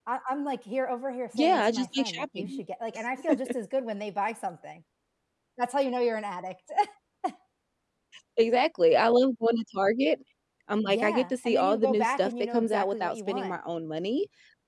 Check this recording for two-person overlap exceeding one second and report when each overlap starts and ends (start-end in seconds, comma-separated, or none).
1.3-2.6, 10.8-13.6